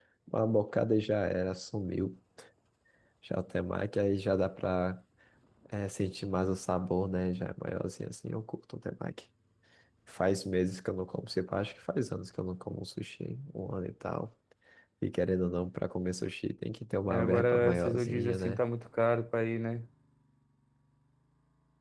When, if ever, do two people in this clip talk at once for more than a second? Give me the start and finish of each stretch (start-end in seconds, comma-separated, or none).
17.1-18.6